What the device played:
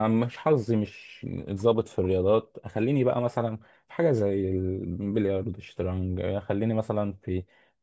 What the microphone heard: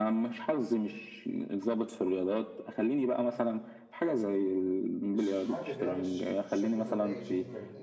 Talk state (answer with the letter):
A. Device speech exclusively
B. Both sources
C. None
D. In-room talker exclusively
B